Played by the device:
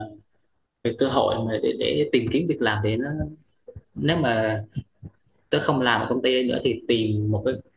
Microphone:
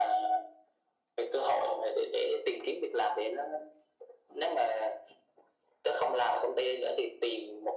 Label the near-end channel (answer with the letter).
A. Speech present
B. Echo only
B